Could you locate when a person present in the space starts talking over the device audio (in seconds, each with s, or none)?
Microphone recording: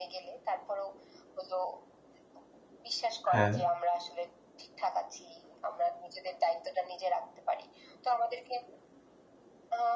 3.3 s